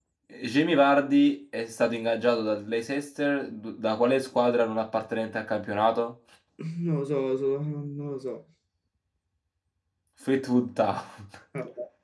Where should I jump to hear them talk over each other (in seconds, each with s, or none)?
none